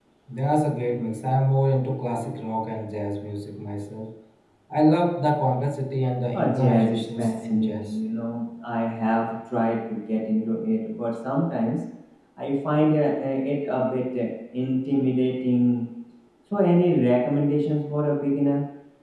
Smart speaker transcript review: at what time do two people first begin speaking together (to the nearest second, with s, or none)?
6 s